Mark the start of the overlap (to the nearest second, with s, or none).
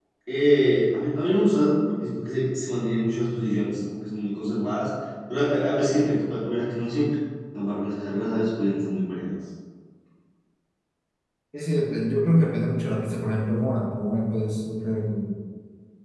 none